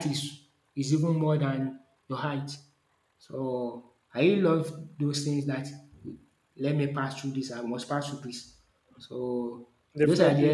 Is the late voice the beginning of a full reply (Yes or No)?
No